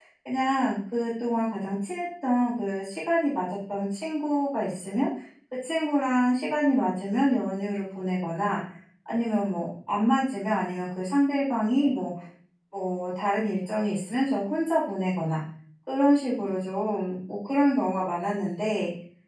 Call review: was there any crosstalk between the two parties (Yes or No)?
No